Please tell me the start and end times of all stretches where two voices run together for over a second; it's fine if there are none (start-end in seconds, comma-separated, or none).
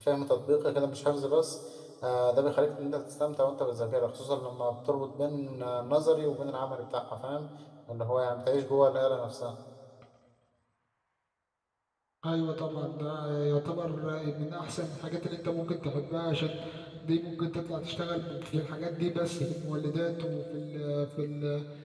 none